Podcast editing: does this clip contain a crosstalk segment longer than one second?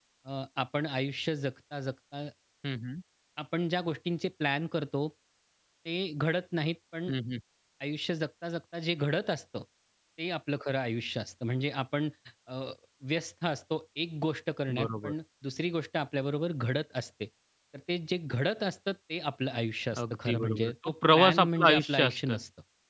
Yes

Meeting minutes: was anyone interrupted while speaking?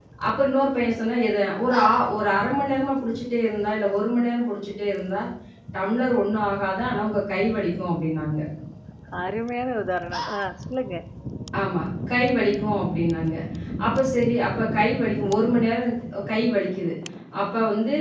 No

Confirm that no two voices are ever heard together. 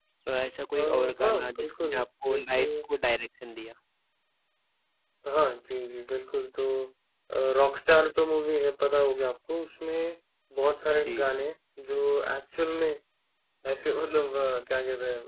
No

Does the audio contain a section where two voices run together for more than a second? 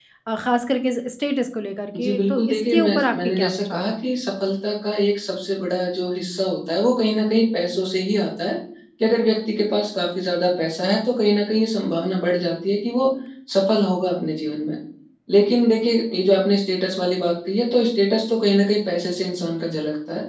Yes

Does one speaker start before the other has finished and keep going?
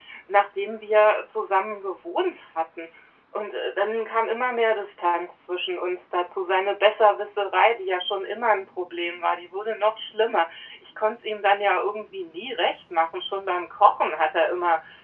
No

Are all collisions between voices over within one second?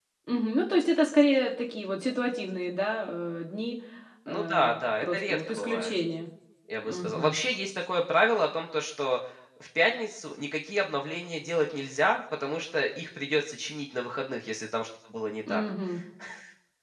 No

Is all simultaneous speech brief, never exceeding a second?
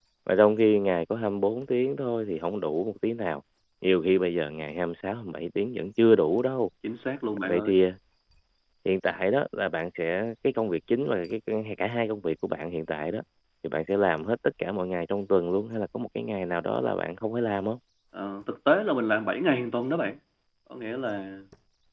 Yes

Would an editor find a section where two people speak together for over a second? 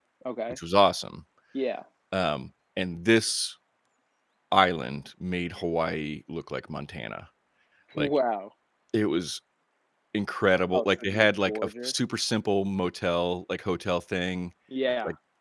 Yes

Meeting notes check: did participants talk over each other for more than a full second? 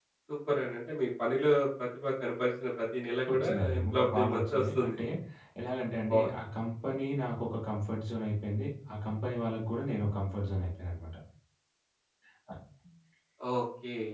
Yes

